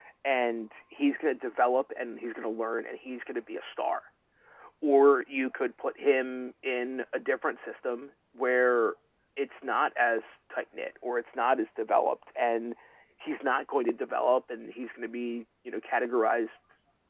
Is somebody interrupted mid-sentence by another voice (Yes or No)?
No